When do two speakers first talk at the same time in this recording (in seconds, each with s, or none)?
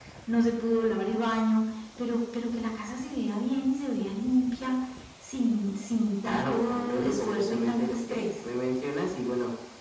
6.2 s